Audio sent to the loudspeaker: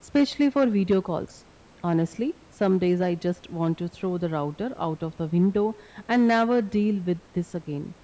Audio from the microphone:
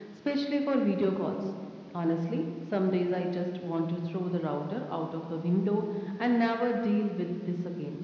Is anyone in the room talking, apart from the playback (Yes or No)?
No